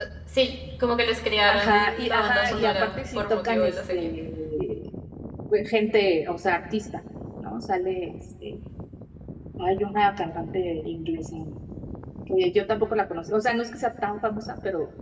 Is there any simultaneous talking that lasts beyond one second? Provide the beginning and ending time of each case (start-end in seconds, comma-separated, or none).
1.5-4.1